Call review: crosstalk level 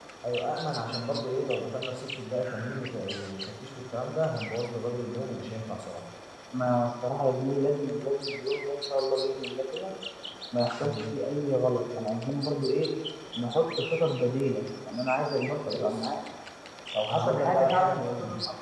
present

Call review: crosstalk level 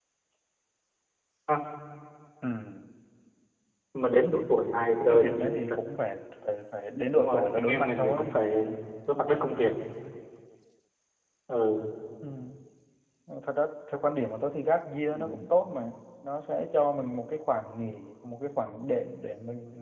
present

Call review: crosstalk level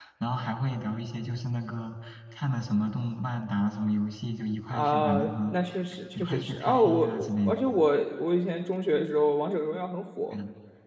present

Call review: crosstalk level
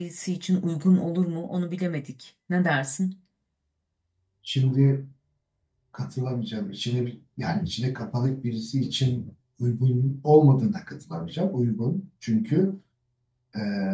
none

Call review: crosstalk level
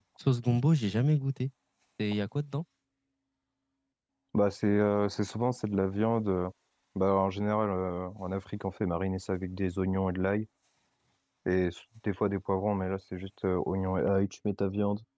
none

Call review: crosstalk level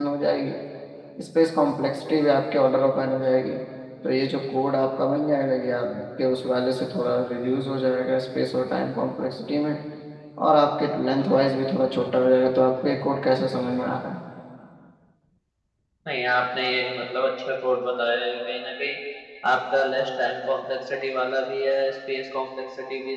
none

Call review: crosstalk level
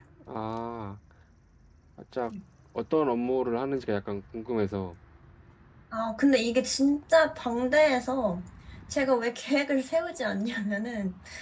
none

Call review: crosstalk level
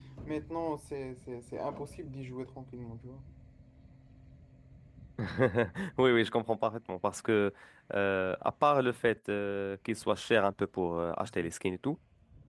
none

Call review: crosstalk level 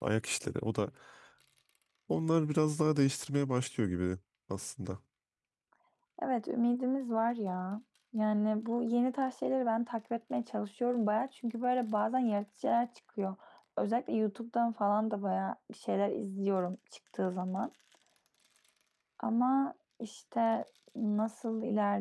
none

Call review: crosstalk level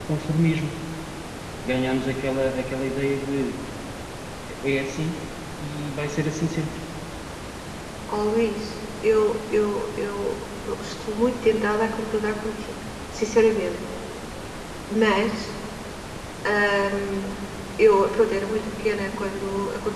none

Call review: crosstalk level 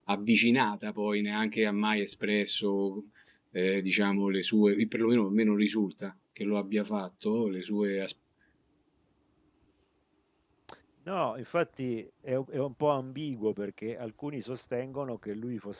none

